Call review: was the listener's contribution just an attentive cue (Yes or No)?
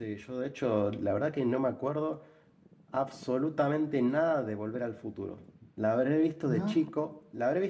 Yes